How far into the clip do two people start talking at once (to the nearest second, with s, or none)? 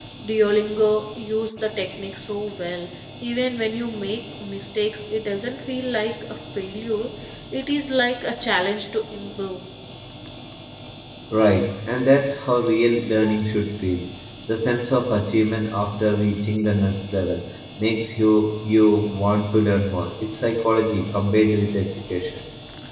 none